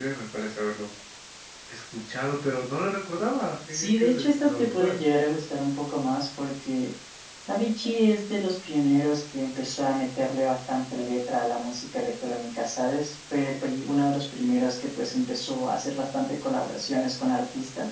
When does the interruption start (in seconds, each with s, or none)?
3.7 s